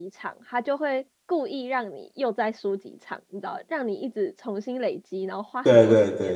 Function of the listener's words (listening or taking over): taking over